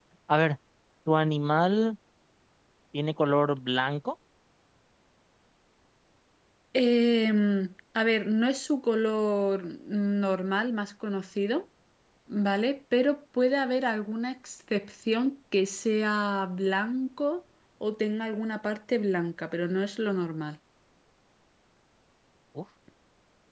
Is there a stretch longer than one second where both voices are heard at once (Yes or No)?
No